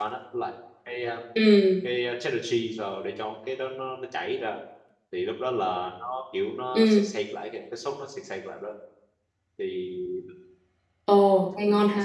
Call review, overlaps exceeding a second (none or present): none